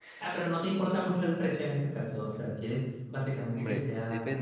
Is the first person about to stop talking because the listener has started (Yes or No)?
Yes